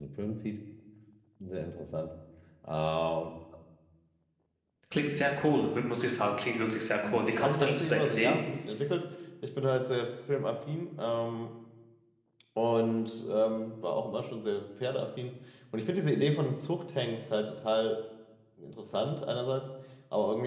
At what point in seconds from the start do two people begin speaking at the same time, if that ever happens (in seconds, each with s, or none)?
7.0 s